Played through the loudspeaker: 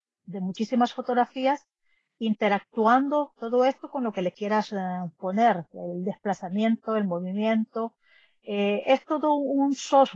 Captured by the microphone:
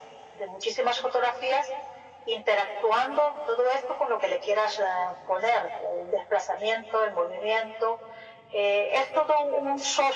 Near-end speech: none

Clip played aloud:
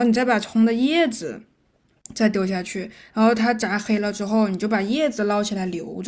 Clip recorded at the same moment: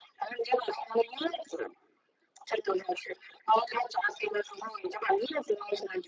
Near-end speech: none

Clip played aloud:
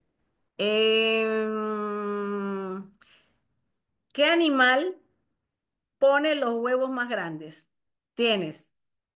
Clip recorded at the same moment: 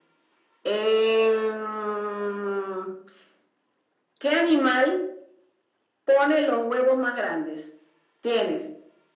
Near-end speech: none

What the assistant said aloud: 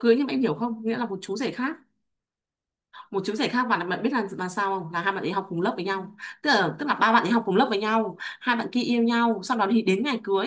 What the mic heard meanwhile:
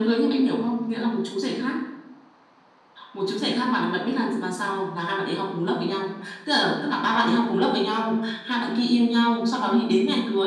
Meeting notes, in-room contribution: none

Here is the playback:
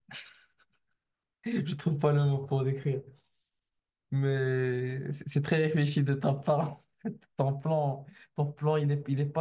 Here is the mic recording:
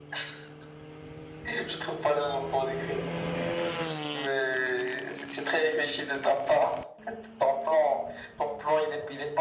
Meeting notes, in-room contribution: none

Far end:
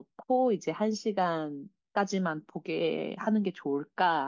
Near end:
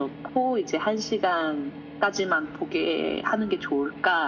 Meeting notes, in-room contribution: none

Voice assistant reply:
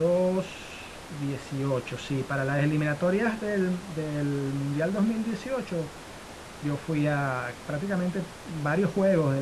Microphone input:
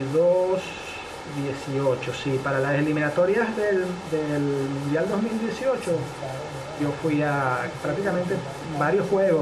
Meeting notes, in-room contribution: present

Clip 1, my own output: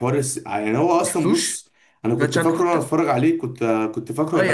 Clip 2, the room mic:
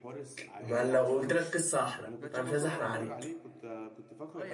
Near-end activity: present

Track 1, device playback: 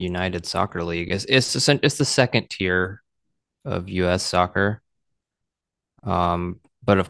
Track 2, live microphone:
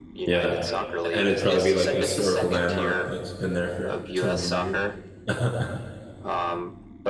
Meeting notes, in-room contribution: present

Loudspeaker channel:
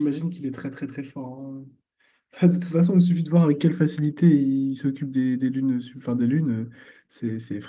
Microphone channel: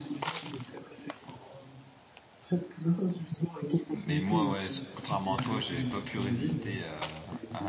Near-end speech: present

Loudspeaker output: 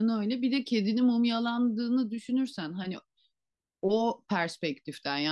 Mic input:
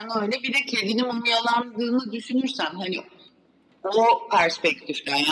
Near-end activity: none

